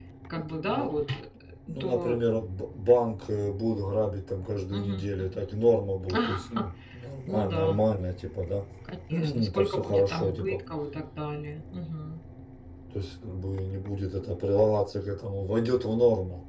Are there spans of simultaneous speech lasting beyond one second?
Yes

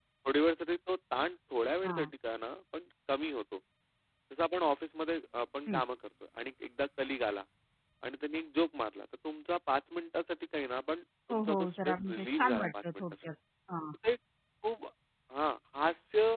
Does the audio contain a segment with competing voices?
Yes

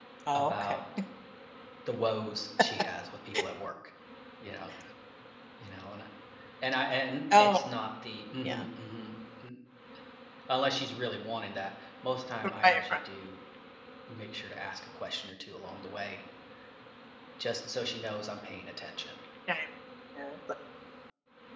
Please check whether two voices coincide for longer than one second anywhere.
No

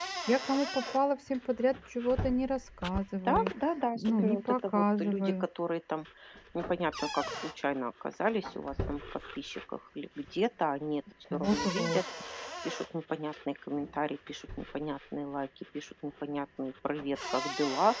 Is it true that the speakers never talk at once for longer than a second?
No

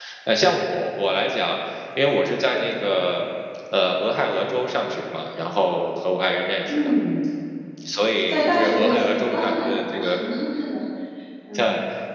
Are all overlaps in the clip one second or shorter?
No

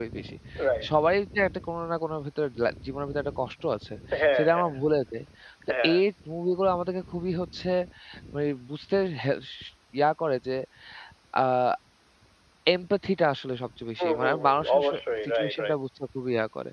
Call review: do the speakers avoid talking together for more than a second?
No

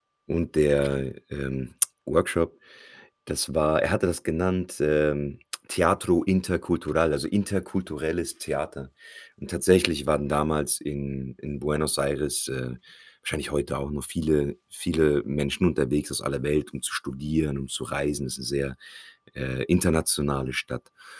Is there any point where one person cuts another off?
No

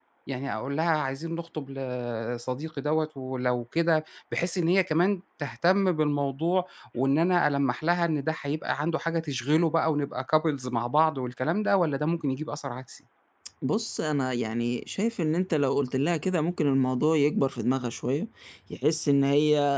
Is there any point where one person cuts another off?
No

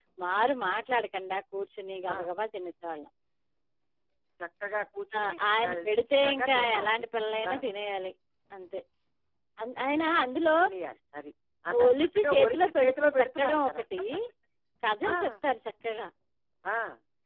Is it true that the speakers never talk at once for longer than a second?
No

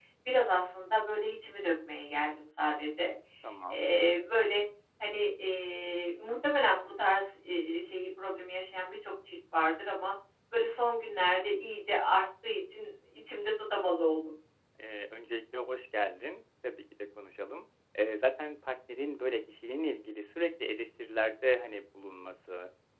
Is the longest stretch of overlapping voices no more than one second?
Yes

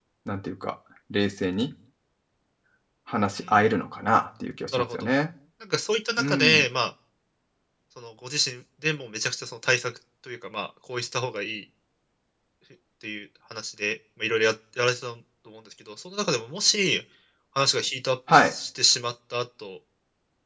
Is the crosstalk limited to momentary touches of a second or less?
Yes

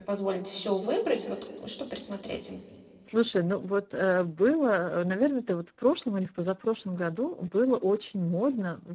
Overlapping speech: No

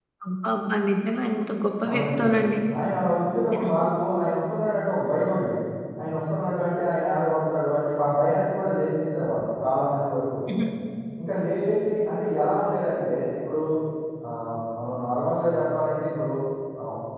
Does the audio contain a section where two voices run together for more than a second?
No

